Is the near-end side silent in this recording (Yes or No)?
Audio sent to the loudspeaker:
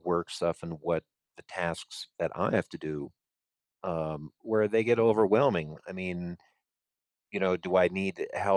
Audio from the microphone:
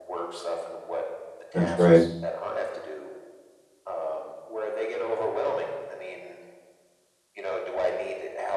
No